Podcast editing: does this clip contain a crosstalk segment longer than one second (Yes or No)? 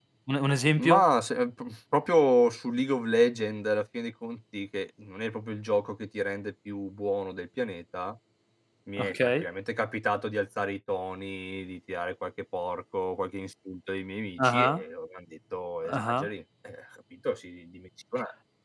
No